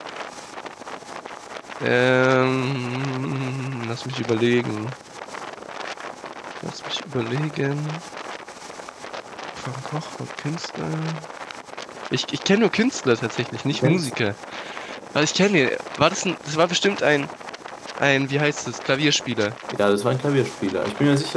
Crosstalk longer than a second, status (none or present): none